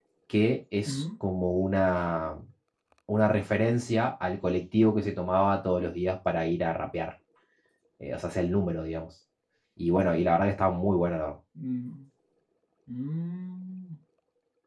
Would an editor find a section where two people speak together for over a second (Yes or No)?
No